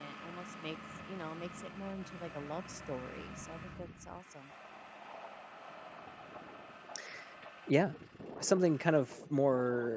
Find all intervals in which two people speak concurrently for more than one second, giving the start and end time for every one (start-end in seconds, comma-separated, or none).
none